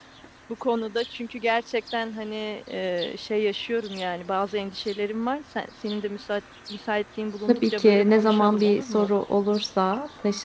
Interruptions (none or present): present